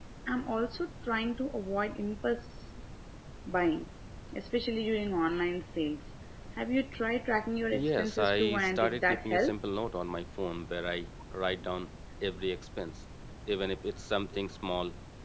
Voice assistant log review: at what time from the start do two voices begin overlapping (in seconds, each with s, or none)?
7.7 s